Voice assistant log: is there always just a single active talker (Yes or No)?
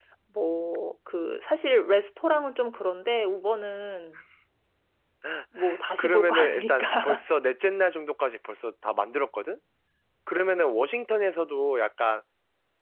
No